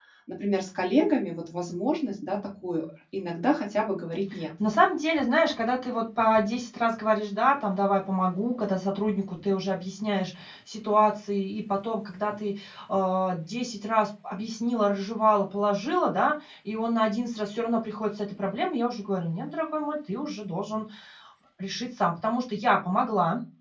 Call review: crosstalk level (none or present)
none